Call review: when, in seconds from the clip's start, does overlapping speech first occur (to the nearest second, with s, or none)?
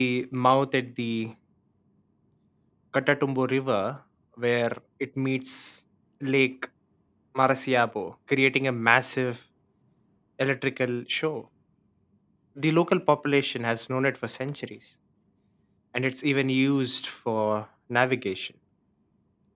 none